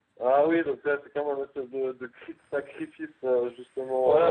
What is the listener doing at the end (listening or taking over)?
taking over